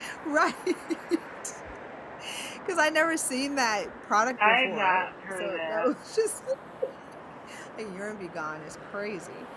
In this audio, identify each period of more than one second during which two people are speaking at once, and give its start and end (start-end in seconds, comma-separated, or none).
4.4-5.9